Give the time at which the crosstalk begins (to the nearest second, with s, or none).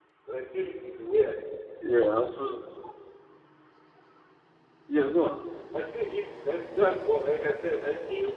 none